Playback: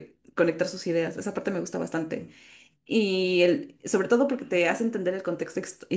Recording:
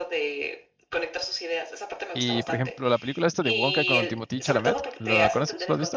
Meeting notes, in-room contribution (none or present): present